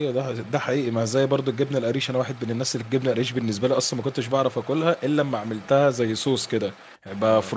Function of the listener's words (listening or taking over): listening